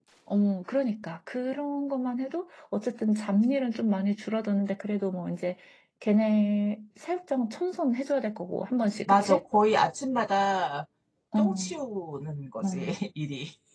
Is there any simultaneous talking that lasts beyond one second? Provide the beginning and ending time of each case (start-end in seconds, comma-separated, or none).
none